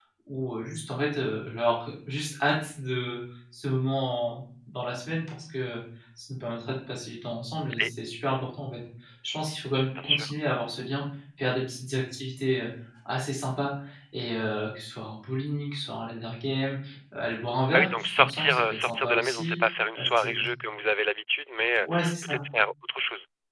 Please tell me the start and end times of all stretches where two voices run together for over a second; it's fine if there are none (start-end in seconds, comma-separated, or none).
17.7-19.6